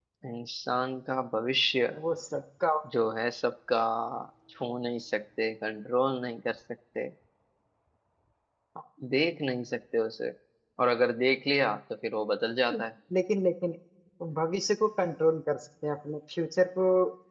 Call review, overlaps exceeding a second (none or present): none